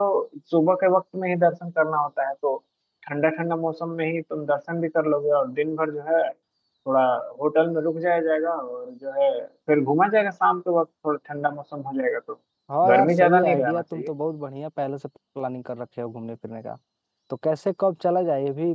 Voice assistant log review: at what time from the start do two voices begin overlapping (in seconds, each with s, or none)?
12.9 s